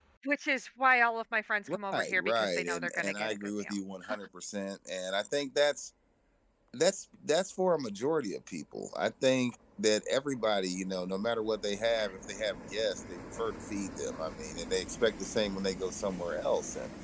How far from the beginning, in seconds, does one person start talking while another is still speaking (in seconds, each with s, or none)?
1.7 s